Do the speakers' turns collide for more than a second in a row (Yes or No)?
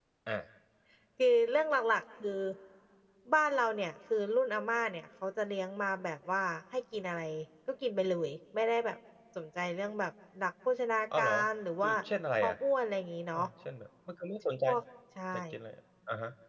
No